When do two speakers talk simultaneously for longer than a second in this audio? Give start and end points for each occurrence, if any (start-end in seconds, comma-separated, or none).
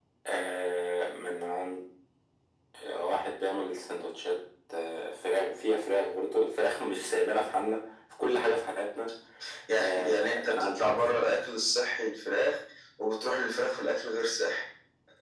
9.7-11.1